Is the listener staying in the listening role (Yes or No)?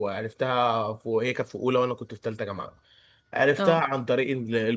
Yes